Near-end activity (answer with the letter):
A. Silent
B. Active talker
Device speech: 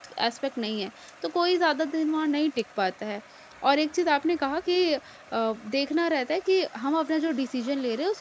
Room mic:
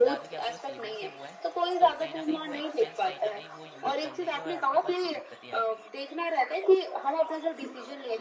B